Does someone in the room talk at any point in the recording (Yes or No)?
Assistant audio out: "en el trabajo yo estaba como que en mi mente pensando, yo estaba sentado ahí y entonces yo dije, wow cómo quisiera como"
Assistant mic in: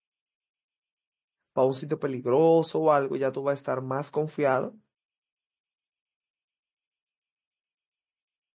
Yes